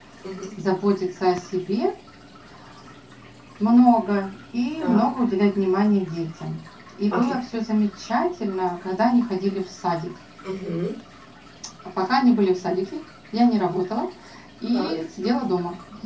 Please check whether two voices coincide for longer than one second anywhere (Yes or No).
No